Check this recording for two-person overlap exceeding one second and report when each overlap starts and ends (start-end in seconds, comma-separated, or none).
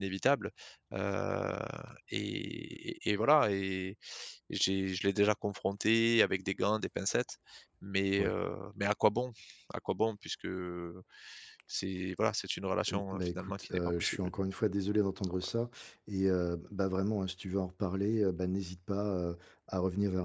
12.9-14.4